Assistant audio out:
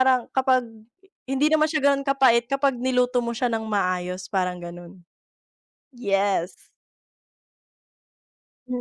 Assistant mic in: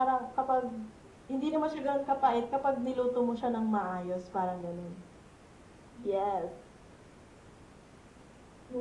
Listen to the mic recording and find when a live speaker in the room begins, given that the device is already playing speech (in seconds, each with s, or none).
none